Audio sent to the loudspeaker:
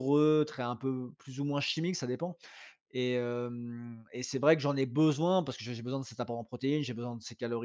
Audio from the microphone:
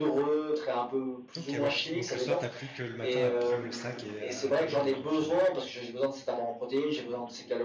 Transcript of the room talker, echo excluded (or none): OK, ouais. Donc le soir, t'as plus que le matin à prendre le sac et à à t'en aller quoi, finalement?